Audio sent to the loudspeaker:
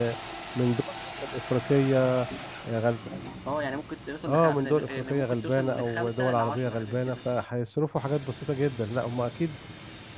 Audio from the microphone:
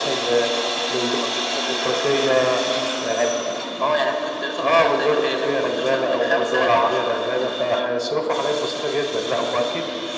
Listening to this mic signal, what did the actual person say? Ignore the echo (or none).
none